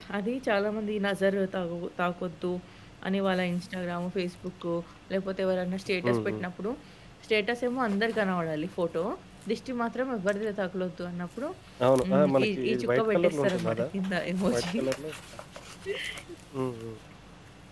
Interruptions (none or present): present